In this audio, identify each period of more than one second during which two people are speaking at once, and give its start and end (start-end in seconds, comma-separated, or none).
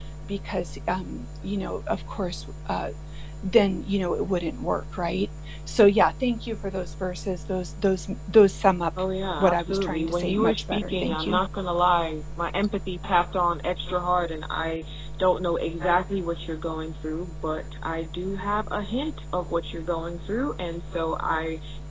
9.4-11.4